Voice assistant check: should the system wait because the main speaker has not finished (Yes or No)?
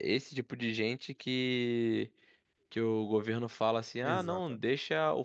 Yes